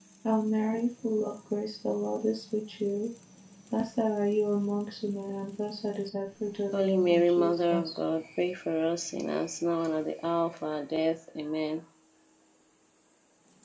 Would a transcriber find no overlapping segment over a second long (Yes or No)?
No